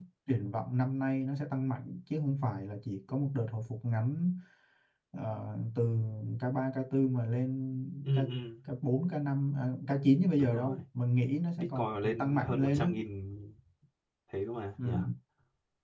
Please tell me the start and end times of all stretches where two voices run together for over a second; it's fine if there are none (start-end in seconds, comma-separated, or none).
11.6-12.9